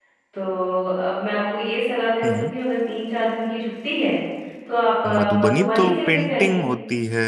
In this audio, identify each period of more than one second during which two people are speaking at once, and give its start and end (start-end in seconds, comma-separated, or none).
5.0-6.6